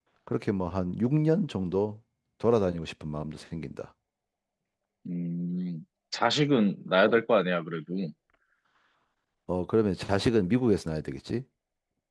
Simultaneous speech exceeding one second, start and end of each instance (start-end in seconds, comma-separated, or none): none